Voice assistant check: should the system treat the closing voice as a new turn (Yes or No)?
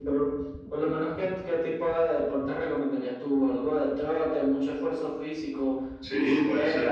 Yes